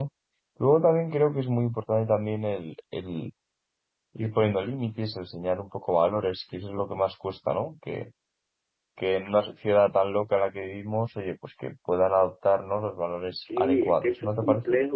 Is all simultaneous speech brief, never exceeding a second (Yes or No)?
No